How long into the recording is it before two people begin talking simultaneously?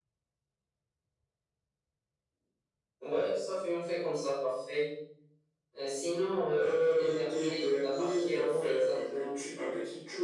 7 s

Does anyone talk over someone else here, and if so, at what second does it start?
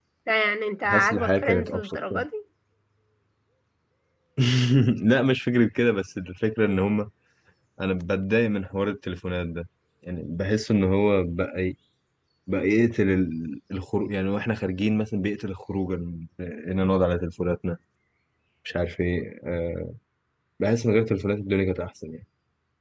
1 s

